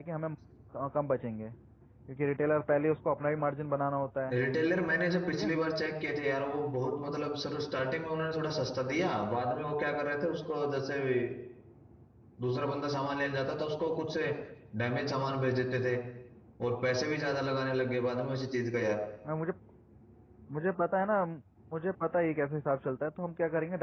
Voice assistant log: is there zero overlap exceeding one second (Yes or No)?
Yes